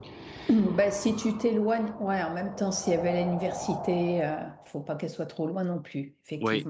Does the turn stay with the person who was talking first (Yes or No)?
No